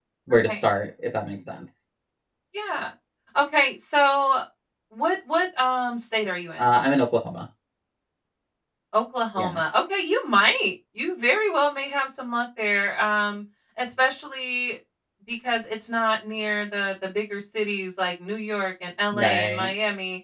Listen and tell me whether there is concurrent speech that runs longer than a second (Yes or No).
No